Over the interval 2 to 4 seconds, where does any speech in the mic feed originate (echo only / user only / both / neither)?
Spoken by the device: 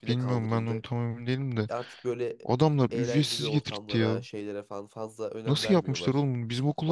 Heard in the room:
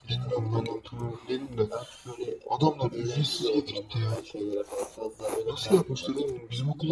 echo only